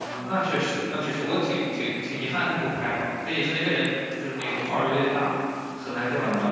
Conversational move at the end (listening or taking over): taking over